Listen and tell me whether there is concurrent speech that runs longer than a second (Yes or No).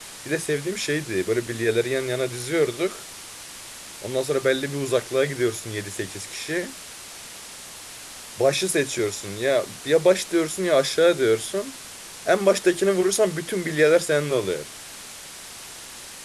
No